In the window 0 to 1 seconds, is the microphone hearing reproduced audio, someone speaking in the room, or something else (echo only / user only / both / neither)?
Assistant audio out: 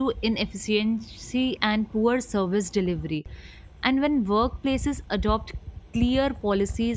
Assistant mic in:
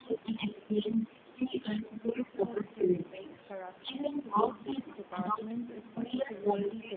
echo only